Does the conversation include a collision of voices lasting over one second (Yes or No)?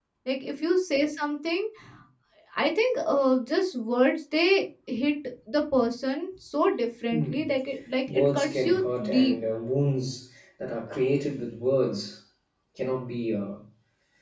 Yes